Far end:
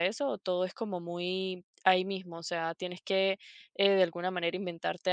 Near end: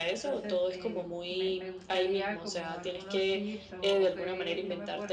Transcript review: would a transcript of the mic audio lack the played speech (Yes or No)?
No